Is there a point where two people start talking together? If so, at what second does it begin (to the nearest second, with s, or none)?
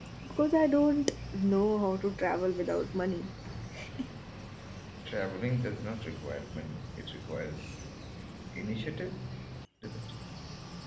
none